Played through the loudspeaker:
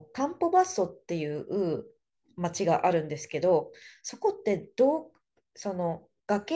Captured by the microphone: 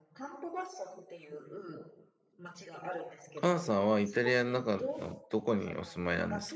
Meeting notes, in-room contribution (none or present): present